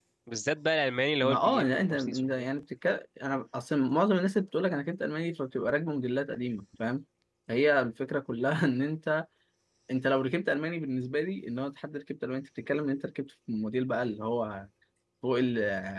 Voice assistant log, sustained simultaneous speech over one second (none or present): present